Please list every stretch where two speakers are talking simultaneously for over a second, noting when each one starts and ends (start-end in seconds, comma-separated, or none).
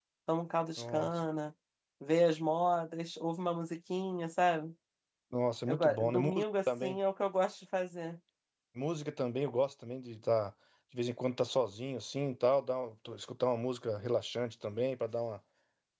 5.7-7.0